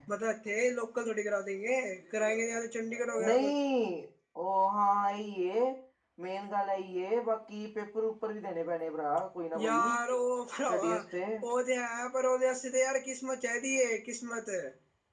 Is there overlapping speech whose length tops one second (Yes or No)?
No